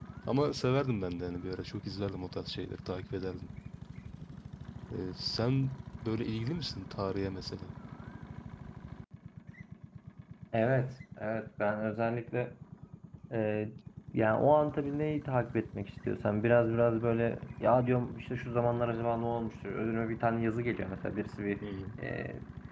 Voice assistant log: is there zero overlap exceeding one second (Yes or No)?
Yes